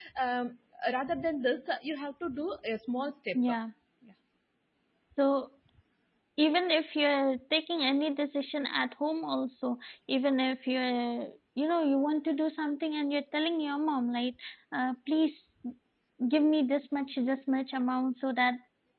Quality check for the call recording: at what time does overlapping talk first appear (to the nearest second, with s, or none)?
none